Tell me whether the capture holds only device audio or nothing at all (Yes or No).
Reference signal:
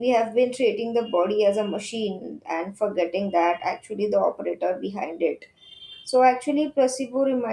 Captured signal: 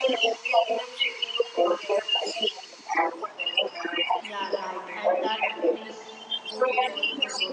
No